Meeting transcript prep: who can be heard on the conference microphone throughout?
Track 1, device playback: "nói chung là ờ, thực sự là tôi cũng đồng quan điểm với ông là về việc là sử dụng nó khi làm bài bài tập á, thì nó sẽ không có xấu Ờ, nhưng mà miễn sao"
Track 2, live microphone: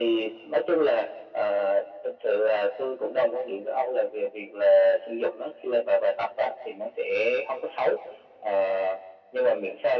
echo only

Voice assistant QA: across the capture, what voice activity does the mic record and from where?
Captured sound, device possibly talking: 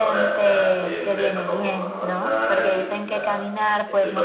both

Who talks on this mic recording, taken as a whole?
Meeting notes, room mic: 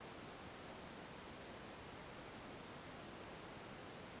neither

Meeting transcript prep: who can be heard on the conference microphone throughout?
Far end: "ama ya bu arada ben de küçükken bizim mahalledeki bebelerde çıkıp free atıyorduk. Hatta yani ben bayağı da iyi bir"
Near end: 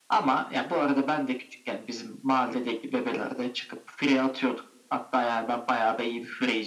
echo only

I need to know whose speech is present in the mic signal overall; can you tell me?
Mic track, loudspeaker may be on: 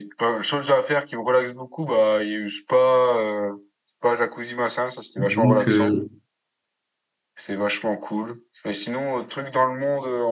both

